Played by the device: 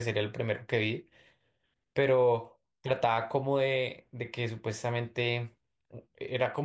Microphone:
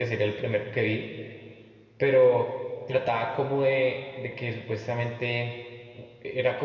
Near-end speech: none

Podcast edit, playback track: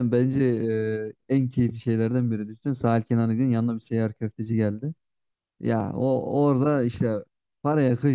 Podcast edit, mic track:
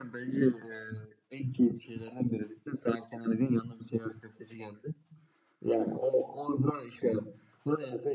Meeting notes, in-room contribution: none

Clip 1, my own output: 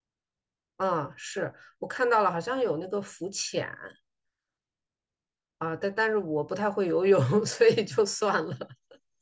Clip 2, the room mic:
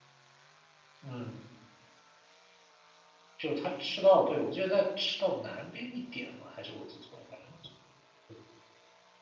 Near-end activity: present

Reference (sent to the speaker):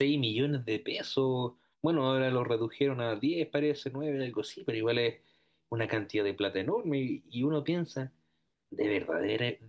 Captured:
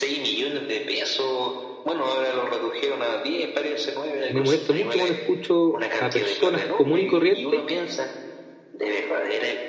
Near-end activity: present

